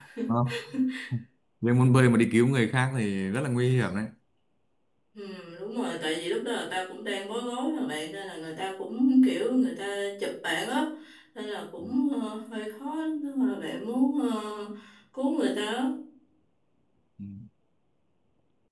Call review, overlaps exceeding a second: none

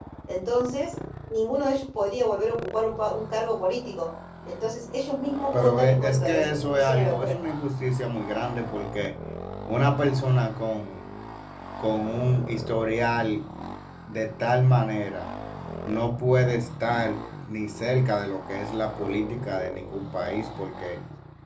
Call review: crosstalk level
present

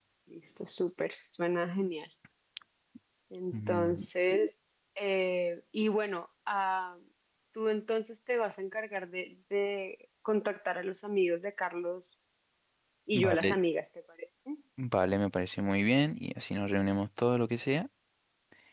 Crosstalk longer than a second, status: none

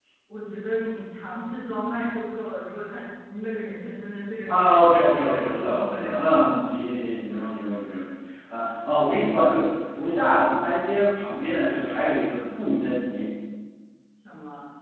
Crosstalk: present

